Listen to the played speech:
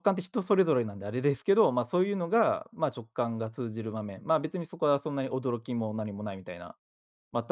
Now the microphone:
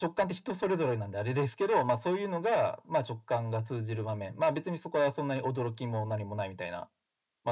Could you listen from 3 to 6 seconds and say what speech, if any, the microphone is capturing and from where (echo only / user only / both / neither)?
echo only